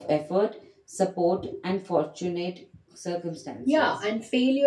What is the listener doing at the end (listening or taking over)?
taking over